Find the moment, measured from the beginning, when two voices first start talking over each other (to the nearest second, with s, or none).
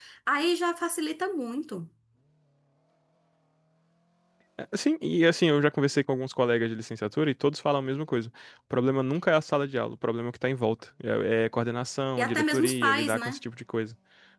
12 s